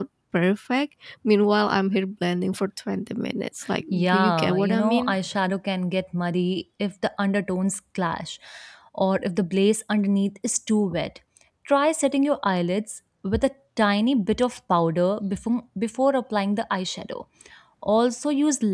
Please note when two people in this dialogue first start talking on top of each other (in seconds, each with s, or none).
3.9 s